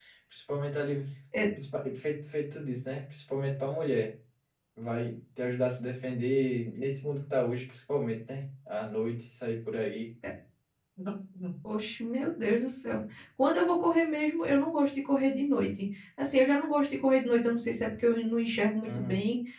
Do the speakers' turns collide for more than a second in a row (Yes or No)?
No